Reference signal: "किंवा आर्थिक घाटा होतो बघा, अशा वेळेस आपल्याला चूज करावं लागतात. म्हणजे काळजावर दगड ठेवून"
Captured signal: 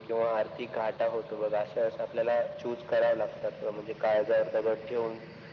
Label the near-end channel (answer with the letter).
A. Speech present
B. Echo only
B